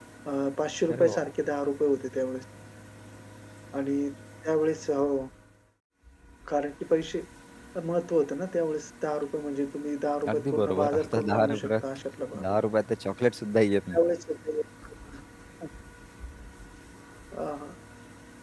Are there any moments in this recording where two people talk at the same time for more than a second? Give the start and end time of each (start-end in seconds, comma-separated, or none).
10.3-11.7